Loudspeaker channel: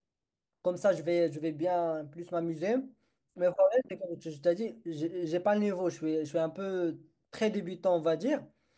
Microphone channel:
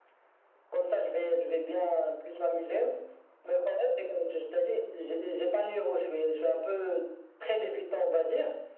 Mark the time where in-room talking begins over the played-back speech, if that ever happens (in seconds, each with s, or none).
none